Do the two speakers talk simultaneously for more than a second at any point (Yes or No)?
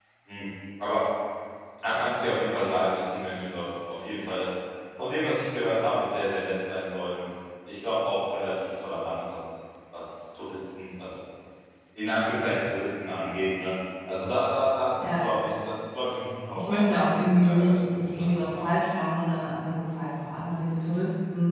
Yes